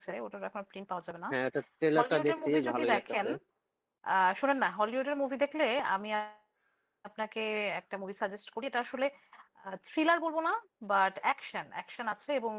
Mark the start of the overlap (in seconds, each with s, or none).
2.0 s